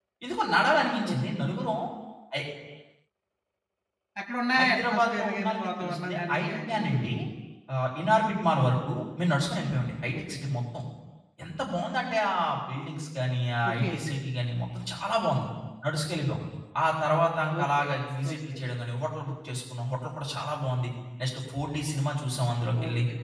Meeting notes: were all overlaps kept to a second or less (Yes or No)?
No